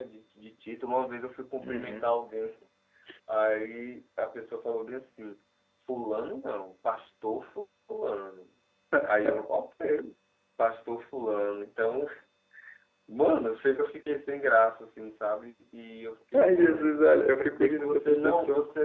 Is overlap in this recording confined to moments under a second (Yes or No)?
No